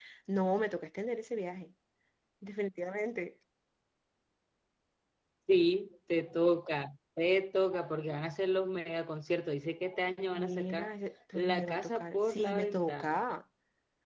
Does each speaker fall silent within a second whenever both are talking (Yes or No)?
No